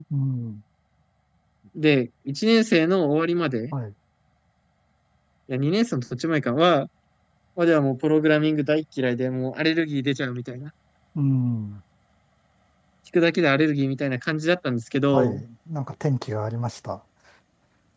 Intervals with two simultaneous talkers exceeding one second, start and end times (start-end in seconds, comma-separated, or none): none